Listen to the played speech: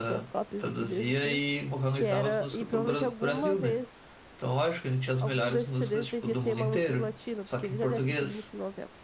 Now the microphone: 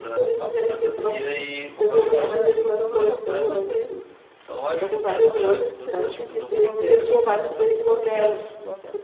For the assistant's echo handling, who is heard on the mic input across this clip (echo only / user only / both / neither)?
both